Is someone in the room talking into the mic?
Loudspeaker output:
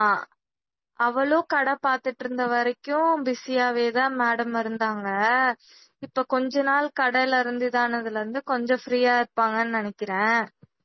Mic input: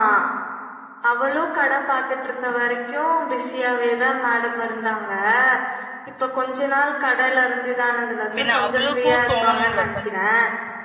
Yes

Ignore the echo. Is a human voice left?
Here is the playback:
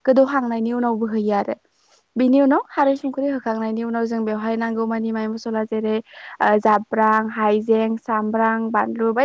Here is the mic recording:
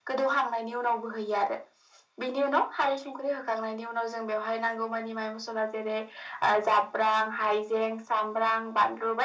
No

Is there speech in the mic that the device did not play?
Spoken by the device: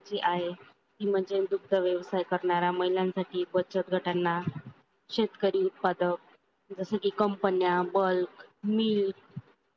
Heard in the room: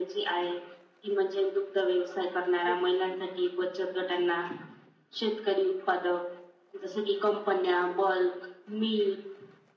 Yes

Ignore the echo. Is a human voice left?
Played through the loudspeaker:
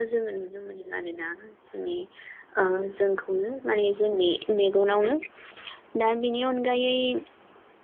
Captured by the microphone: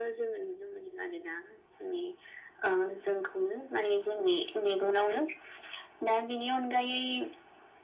No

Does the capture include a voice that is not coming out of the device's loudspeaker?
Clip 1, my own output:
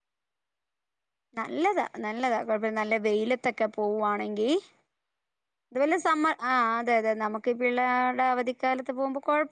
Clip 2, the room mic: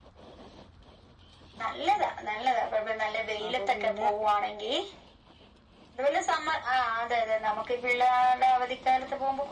Yes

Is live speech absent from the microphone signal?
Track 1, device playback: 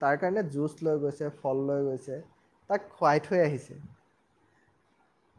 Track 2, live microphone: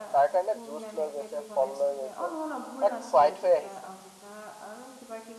No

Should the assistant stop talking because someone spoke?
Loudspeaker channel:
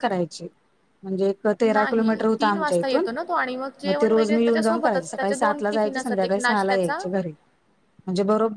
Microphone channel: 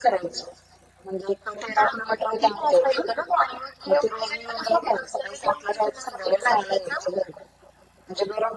No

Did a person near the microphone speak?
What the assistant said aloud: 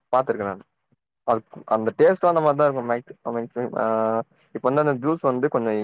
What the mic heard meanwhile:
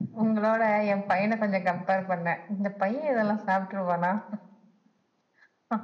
Yes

